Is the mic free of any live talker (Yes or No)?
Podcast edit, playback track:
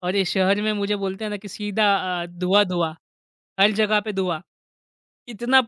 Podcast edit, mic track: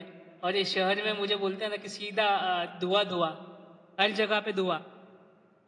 Yes